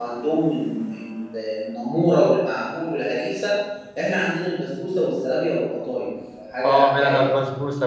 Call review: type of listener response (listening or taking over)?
taking over